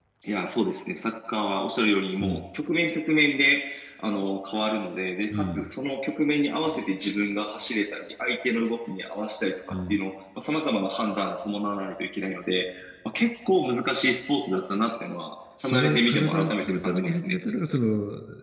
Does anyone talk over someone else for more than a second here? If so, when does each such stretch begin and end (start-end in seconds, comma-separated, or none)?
15.6-17.4